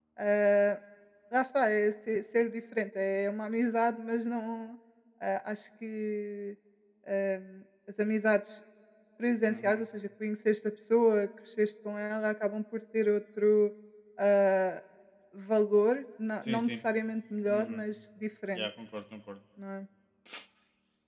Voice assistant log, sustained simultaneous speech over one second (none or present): none